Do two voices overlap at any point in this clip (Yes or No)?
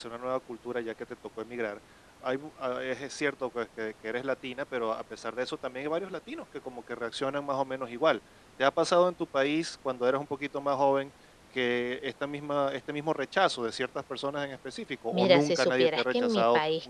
Yes